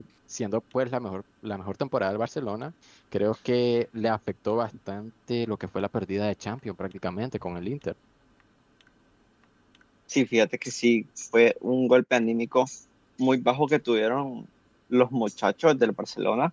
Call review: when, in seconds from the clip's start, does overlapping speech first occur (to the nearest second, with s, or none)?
none